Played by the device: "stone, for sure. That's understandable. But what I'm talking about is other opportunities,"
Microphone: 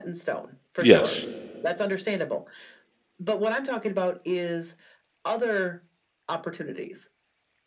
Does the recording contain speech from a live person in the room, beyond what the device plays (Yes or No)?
Yes